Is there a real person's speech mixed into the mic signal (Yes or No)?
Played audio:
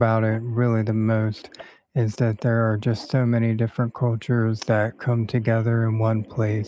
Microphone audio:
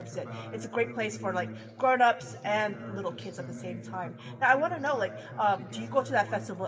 Yes